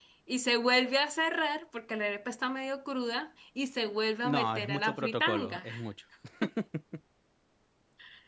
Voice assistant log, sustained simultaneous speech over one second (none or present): present